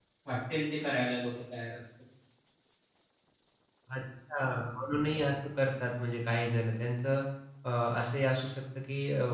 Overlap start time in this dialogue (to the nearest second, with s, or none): none